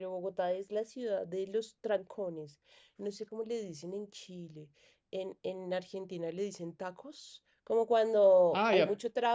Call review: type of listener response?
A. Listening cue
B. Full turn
A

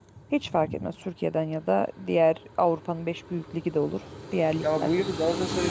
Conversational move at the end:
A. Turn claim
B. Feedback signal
A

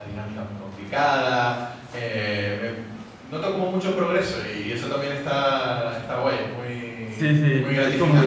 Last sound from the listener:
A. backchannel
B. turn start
B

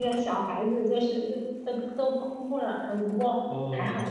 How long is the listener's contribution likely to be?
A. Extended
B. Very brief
B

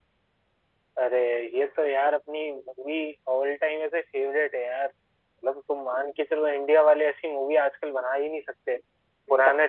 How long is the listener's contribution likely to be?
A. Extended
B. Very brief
B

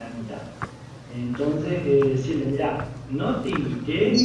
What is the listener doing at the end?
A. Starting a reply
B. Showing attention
A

